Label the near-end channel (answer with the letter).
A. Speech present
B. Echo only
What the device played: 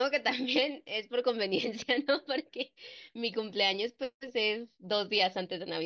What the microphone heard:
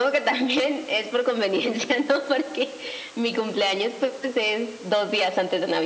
B